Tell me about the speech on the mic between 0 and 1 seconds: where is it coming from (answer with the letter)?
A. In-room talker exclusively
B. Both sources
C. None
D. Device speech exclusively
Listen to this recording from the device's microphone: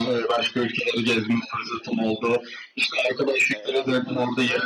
D